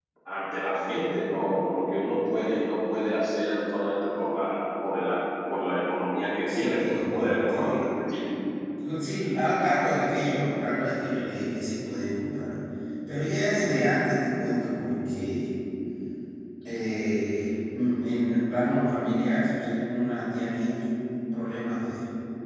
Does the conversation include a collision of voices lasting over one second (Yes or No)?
Yes